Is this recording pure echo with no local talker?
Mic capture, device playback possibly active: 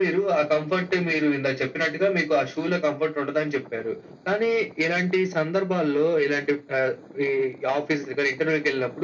Yes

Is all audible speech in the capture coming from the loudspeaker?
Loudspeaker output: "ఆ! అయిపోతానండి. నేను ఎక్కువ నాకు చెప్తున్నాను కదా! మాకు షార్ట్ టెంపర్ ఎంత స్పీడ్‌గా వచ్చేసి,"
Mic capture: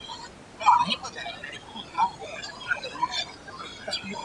Yes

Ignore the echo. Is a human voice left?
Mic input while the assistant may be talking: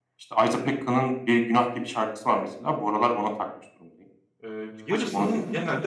Yes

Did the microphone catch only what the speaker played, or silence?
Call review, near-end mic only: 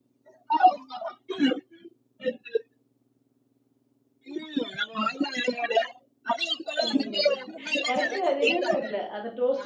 No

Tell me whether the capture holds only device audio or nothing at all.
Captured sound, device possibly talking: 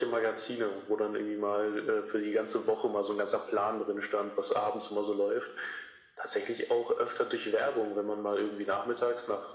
Yes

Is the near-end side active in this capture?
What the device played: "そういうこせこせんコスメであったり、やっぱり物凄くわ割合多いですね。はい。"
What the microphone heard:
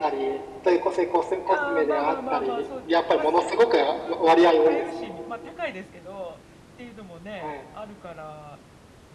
Yes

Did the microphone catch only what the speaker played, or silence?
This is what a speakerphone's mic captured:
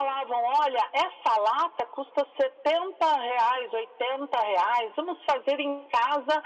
Yes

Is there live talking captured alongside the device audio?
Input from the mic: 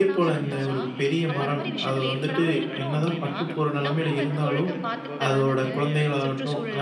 Yes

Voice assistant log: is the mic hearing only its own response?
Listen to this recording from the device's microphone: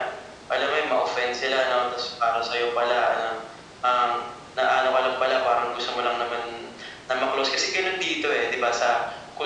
Yes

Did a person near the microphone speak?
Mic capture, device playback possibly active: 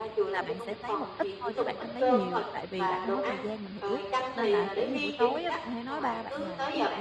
Yes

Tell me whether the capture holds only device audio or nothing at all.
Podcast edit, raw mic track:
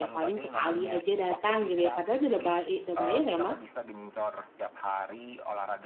No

